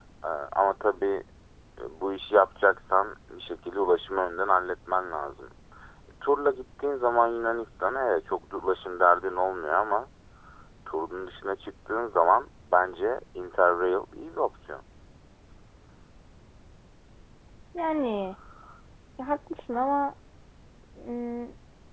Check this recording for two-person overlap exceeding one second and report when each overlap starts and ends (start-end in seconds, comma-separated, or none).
none